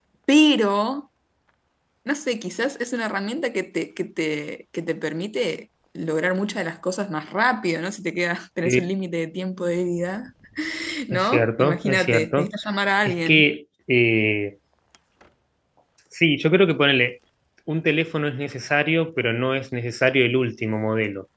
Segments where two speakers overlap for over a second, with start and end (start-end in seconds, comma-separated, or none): 11.1-12.5